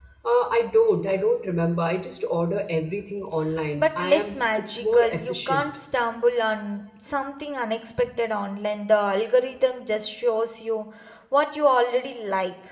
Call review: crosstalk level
present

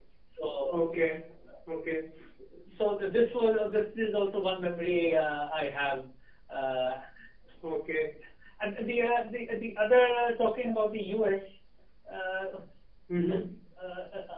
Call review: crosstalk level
none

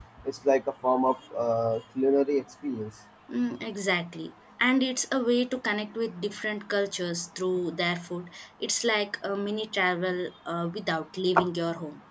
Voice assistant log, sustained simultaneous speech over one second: none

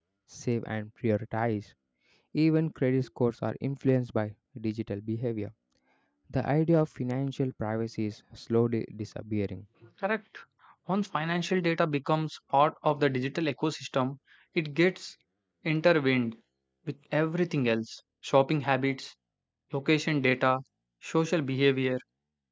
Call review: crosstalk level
none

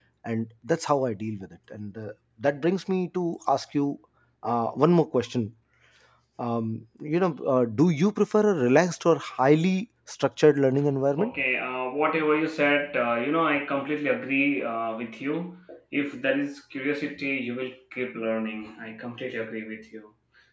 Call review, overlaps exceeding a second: none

